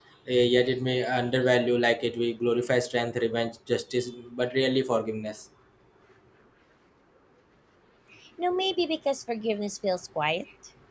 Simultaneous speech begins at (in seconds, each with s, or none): none